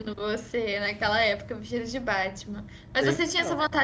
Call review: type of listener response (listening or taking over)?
listening